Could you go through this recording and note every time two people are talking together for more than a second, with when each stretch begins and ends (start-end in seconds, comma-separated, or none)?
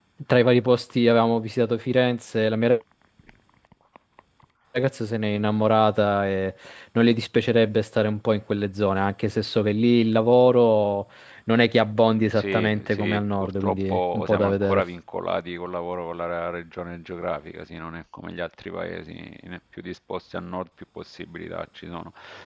12.4-14.8